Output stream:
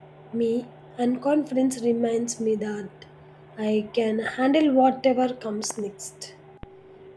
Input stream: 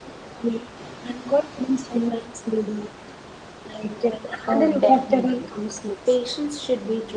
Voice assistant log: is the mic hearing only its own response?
No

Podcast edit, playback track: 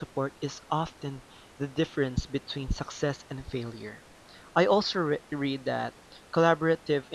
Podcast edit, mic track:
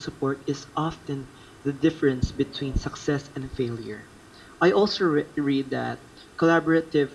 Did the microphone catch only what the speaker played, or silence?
Yes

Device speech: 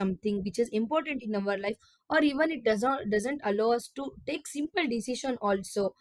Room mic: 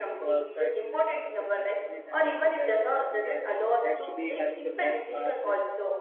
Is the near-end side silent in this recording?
No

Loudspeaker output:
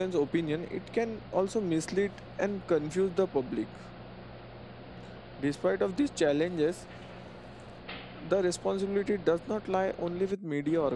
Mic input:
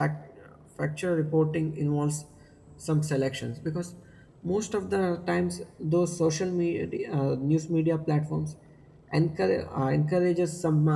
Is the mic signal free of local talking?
No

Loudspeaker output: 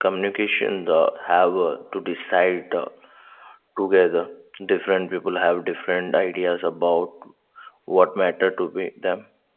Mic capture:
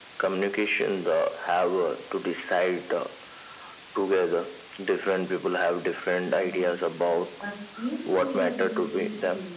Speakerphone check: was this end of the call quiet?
No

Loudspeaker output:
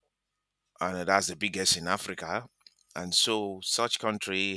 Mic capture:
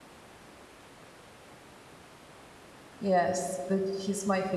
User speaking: Yes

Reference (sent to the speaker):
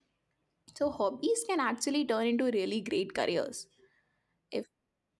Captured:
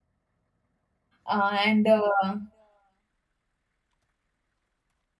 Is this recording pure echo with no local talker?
No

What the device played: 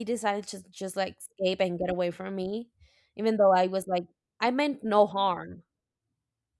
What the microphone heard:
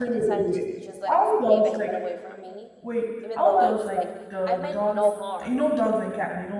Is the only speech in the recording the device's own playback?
No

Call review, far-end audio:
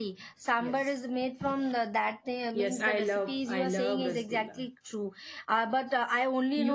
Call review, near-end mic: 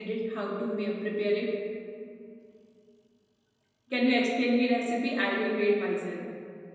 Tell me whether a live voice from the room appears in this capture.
Yes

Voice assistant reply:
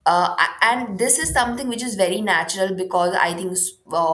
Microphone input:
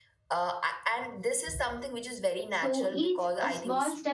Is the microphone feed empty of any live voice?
No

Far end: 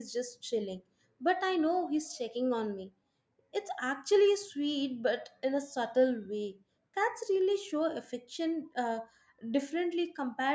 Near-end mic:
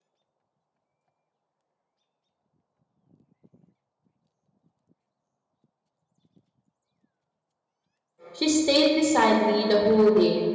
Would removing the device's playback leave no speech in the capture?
No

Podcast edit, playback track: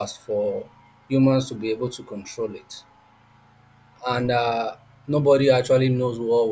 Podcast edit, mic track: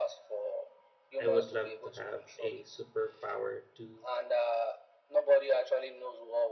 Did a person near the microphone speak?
Yes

